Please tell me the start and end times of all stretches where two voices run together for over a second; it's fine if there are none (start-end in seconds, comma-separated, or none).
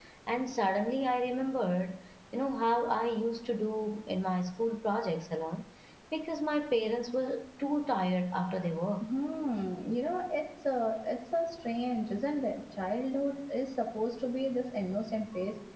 none